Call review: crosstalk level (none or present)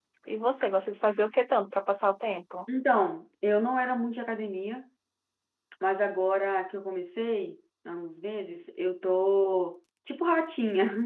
none